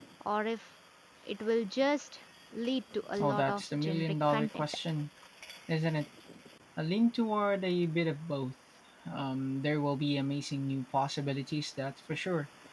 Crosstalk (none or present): present